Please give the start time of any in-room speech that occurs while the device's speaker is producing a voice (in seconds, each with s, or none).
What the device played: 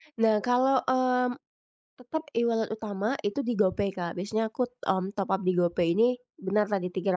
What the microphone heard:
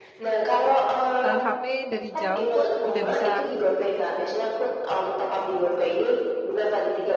1.2 s